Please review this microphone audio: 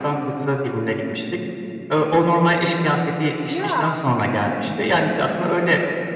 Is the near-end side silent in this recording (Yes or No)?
No